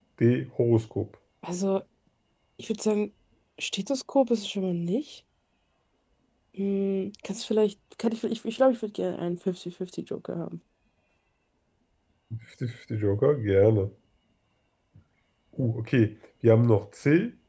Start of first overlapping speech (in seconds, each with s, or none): none